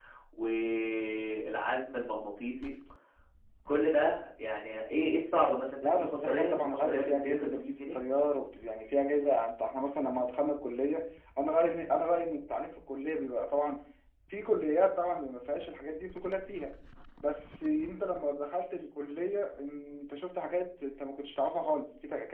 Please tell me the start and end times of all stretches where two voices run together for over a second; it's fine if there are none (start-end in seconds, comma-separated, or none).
5.8-8.0